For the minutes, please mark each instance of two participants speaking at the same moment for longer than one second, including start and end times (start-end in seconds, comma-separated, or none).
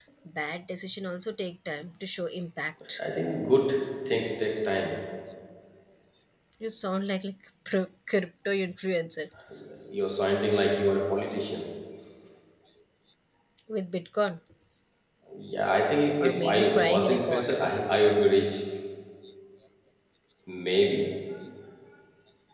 16.2-17.7